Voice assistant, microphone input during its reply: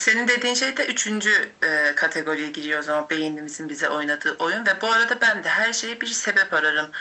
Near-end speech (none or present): none